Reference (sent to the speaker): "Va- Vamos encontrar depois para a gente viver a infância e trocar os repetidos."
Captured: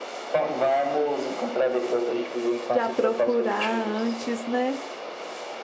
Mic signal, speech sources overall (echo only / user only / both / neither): both